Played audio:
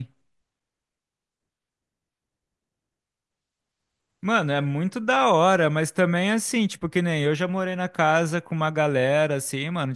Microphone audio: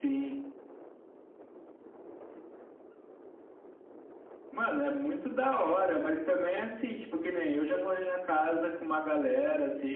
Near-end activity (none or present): none